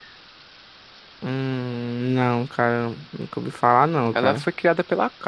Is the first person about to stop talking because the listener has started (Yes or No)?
Yes